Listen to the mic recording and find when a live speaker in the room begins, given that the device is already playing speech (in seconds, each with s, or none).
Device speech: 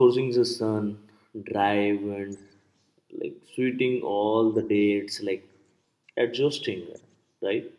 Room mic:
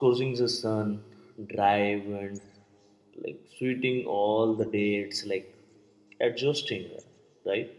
none